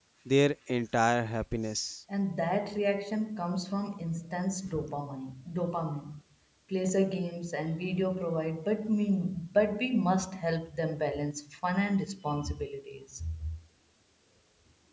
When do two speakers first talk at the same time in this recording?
none

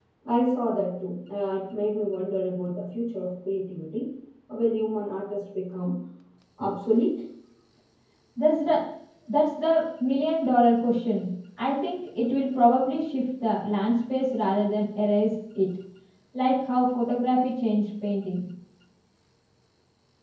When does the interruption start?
none

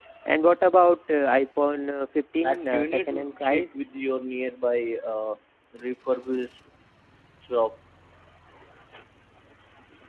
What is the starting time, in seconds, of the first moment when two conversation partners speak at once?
2.4 s

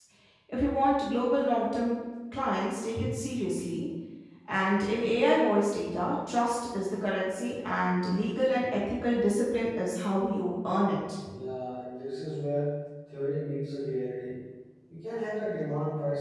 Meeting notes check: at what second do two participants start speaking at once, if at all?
none

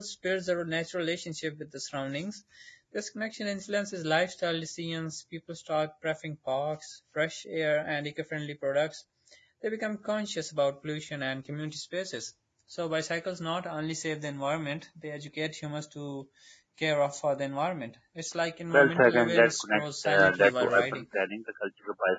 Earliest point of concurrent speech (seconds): 18.7 s

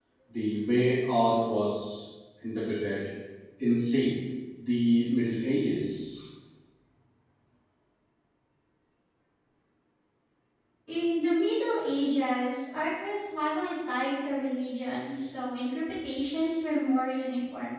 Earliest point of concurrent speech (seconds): none

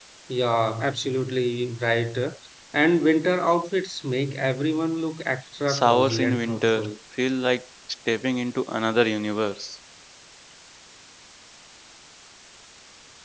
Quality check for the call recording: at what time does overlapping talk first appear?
5.7 s

